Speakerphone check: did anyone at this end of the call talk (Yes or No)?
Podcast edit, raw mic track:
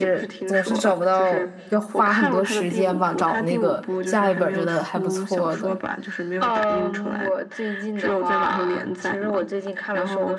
Yes